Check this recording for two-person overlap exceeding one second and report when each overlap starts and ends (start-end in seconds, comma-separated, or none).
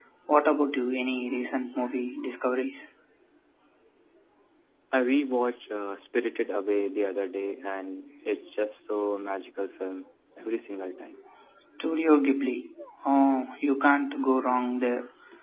none